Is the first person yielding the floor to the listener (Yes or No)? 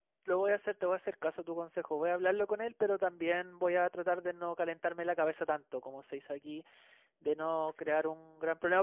No